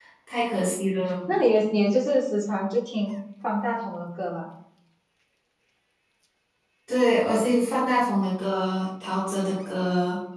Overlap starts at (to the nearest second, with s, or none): none